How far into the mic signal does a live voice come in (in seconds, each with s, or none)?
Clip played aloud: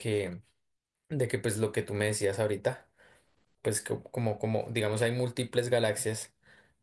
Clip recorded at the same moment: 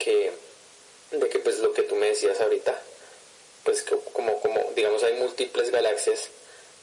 none